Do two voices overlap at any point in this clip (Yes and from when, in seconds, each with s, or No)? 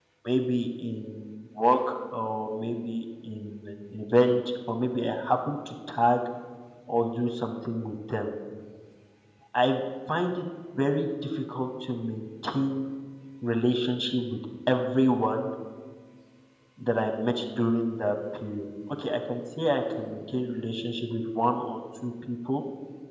No